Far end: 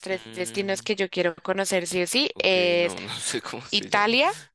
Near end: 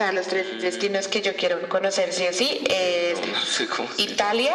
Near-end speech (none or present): none